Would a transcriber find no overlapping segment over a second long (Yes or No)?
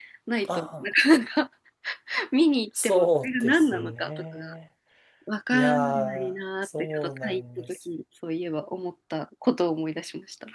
No